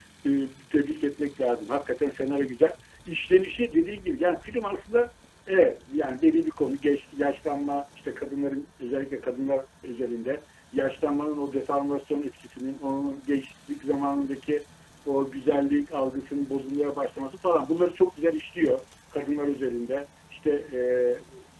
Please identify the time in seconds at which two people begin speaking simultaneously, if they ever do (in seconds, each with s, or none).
none